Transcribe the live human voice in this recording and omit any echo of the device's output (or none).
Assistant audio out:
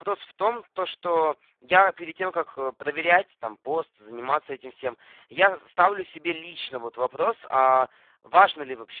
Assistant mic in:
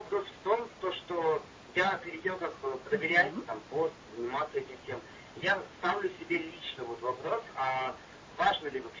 Мгм.